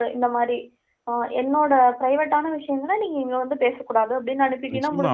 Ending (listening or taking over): taking over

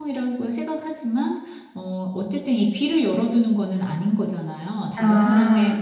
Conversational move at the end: listening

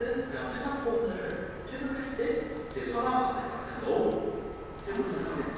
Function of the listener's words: taking over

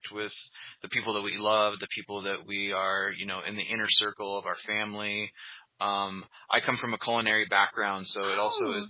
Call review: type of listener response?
listening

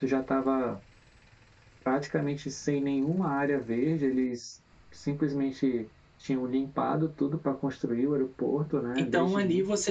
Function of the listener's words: taking over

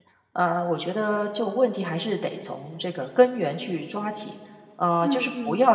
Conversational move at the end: listening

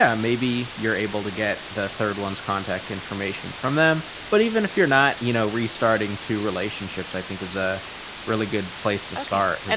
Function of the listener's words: taking over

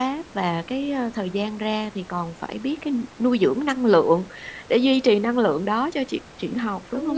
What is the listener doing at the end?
taking over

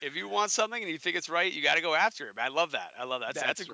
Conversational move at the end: taking over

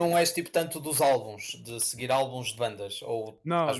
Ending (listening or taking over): taking over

